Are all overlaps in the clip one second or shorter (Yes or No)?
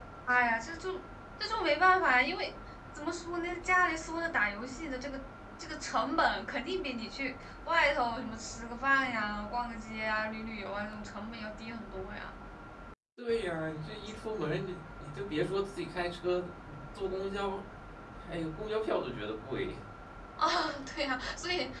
Yes